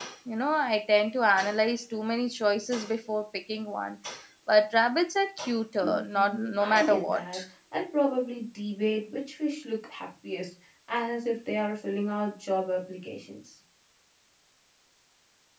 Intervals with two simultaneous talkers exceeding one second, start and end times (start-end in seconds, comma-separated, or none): 5.8-7.4